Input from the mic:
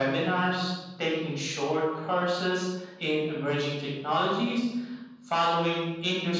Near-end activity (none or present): none